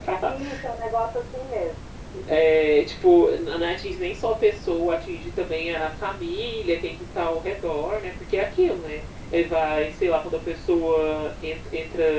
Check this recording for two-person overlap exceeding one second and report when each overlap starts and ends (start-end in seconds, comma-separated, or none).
none